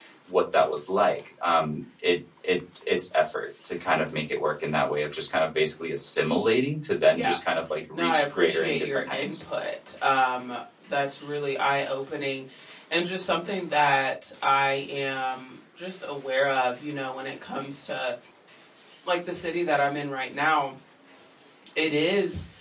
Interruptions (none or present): present